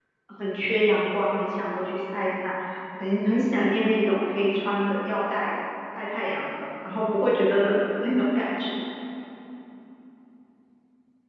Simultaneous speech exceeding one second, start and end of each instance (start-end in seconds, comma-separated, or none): none